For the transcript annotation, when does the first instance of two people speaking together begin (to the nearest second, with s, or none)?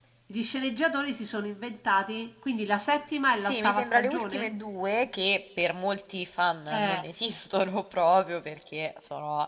3 s